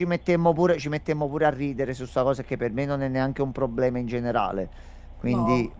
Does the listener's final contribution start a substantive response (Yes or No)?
No